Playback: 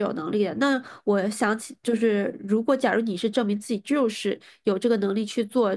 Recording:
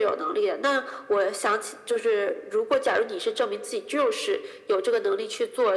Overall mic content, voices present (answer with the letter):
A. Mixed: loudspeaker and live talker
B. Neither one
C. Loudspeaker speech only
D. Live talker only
C